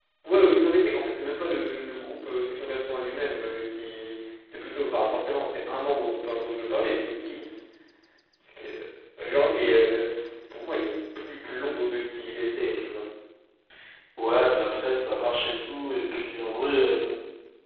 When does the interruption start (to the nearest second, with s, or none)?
none